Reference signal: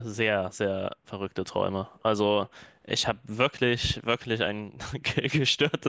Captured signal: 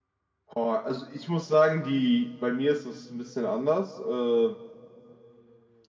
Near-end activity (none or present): present